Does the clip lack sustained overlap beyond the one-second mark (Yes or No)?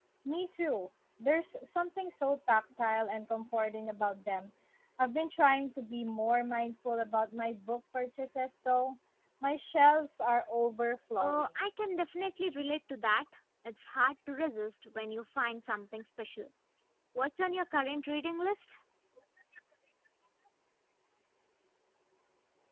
Yes